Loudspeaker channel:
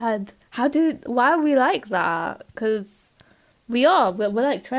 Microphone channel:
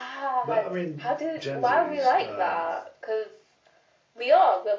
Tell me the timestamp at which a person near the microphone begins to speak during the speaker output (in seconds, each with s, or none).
0.4 s